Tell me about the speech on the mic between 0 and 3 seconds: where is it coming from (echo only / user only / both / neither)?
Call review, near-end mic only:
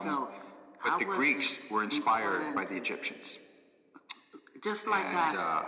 echo only